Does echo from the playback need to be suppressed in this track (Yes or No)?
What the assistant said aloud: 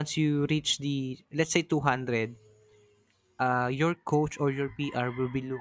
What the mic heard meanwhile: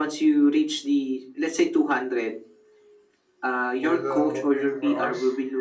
Yes